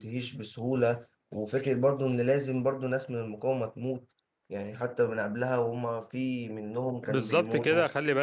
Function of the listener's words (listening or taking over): taking over